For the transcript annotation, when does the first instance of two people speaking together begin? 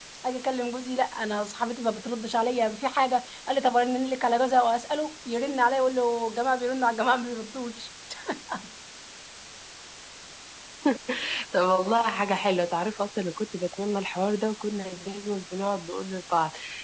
none

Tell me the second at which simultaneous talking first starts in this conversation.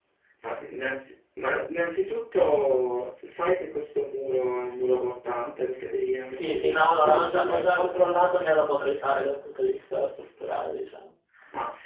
6.3 s

